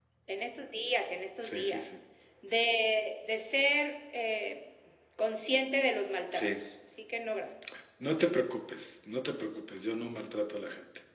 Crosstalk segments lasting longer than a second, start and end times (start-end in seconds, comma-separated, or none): none